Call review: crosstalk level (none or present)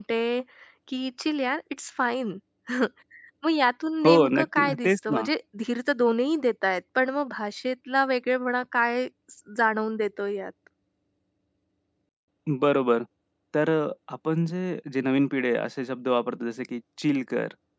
present